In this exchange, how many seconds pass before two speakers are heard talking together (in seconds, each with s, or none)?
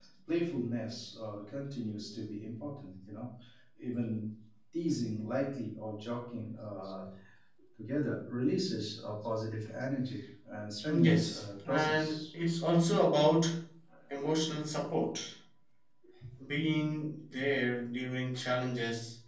10.8 s